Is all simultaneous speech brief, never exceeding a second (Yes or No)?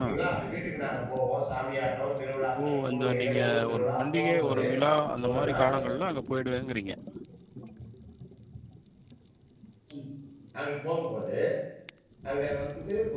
No